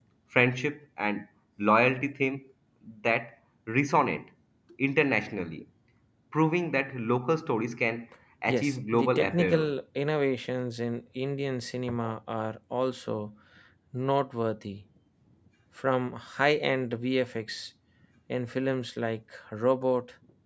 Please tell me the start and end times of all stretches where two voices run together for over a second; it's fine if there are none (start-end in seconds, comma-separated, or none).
8.5-9.7